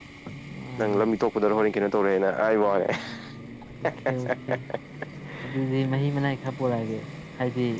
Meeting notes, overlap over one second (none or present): none